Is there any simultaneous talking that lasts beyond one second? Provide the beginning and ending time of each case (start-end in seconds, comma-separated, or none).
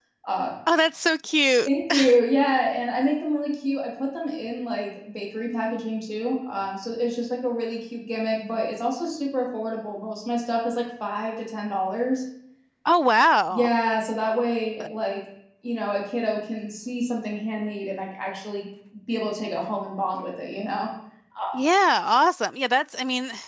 none